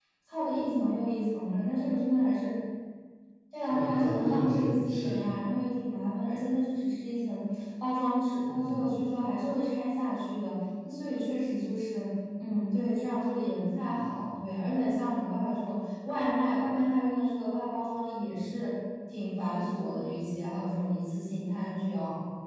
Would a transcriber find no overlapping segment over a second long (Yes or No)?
No